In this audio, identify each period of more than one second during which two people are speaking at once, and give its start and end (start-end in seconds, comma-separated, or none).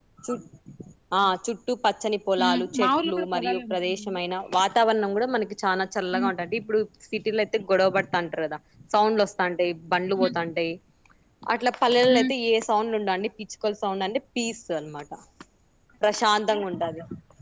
2.4-4.1